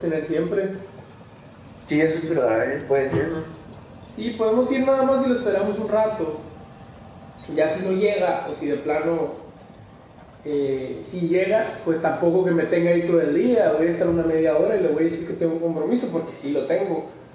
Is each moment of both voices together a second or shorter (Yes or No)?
Yes